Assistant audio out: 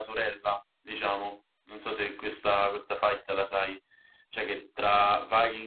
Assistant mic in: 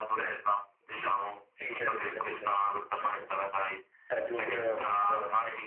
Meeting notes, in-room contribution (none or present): present